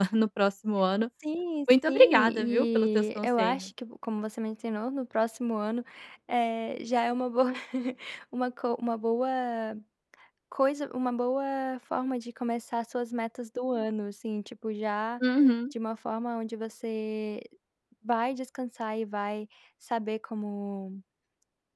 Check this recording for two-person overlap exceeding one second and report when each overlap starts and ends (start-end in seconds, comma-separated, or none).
1.9-3.7